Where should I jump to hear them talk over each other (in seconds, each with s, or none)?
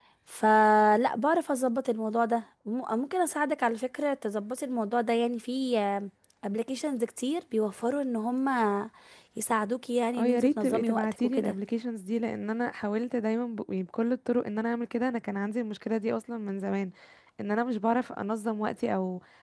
10.2 s